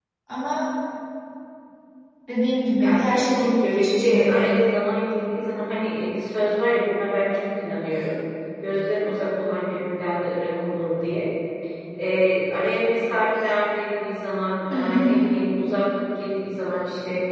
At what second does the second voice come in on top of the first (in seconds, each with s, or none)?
2.8 s